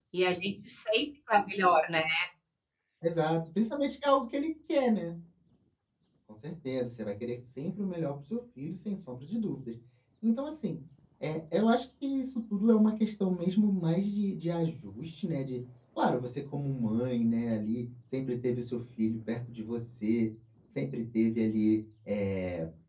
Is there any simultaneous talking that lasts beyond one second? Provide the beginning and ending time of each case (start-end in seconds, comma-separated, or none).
none